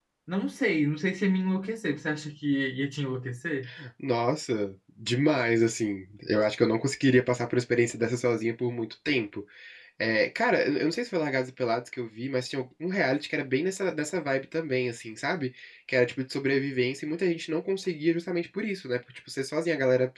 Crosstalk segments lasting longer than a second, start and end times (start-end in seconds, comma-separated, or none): none